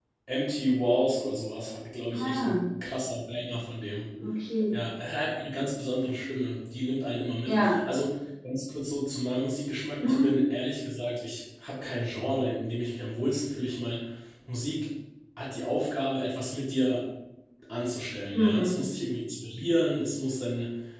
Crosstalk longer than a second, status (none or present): none